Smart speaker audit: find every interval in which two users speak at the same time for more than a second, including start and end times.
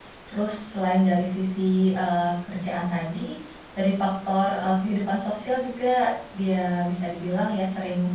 none

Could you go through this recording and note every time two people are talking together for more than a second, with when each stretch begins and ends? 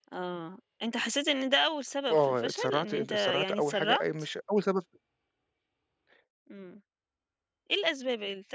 2.1-4.0

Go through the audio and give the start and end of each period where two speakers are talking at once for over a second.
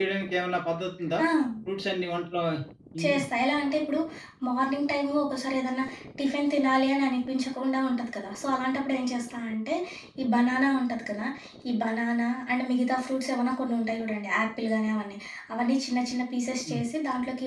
none

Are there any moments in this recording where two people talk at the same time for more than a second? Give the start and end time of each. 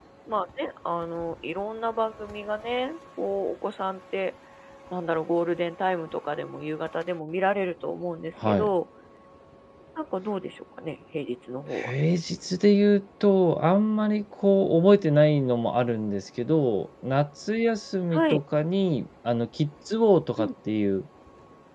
none

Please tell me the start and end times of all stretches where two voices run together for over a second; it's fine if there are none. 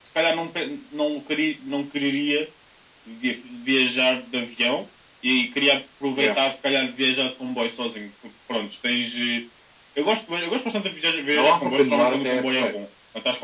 11.3-12.7

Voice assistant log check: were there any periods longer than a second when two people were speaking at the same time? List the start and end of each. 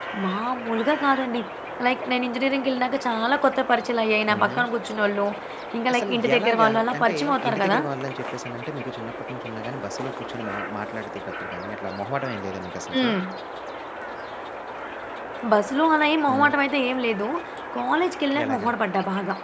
5.9-7.8

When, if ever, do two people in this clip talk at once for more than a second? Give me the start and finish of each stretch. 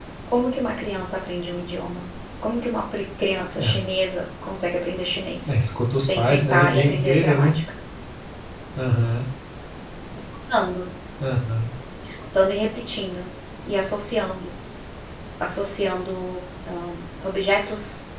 6.0-7.5

